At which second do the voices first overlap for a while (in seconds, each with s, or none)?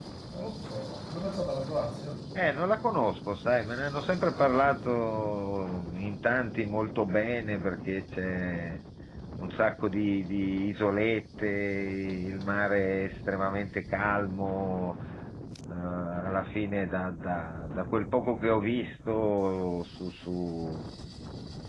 none